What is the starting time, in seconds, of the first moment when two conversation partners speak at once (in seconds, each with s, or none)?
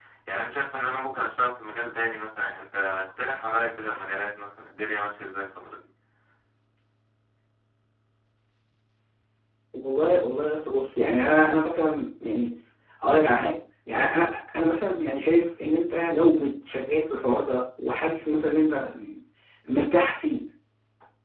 none